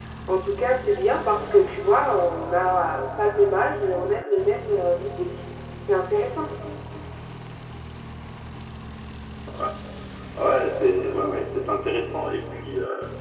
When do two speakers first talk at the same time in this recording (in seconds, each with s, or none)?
none